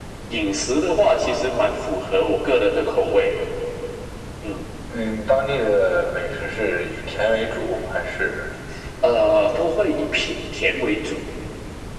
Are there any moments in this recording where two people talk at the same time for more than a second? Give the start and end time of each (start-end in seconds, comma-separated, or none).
none